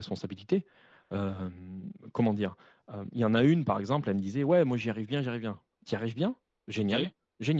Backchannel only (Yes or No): Yes